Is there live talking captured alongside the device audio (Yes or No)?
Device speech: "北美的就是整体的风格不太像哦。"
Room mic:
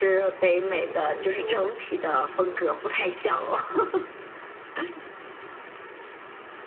Yes